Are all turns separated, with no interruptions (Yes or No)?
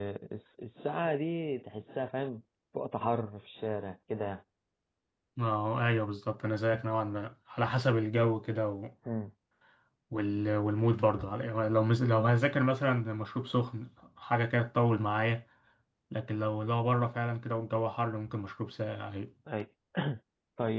Yes